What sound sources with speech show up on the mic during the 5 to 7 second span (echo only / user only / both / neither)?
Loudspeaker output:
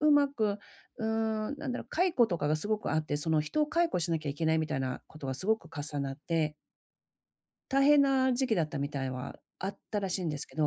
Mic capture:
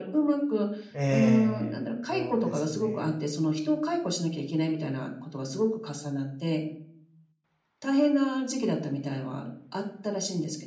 echo only